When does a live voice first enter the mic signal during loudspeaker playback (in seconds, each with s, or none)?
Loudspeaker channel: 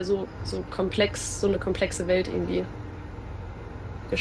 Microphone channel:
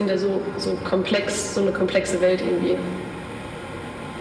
none